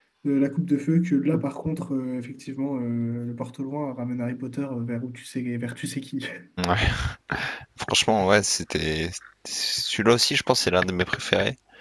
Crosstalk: none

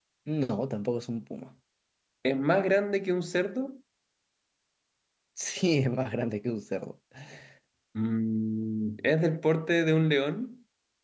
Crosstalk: none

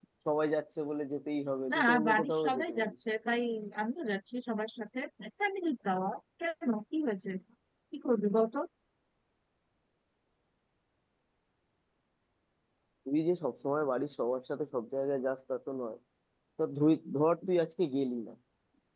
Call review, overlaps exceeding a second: present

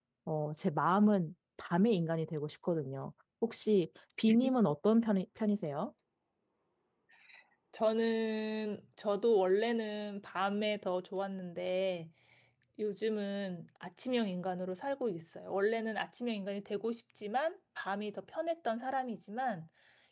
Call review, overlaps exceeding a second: none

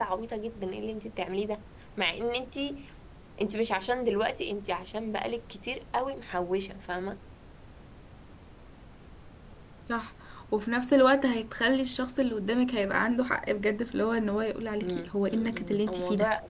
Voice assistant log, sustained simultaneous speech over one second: present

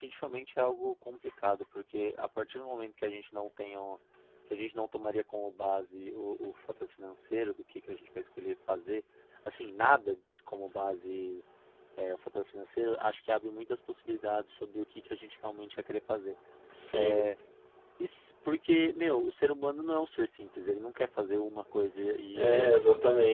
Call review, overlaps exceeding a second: none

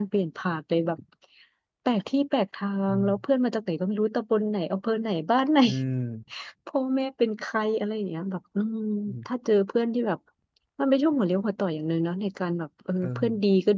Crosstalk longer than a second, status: none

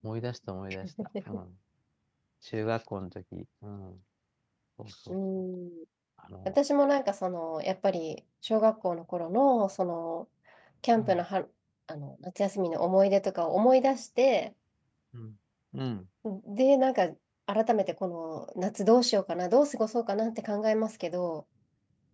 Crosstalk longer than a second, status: none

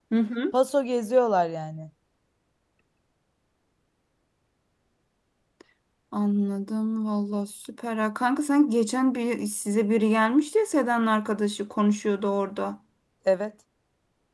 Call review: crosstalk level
none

